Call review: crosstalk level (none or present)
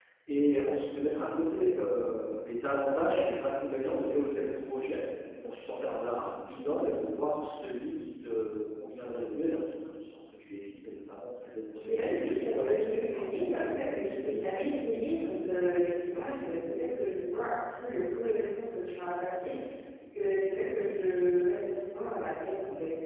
present